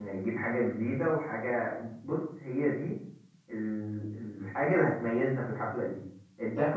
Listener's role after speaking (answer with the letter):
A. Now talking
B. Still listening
B